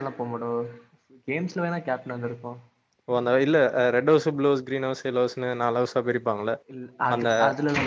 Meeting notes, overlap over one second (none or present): none